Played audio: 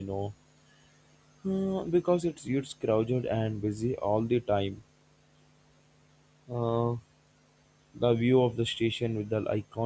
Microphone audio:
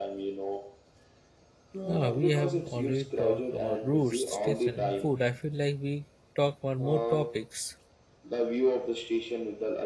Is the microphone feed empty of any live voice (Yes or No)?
No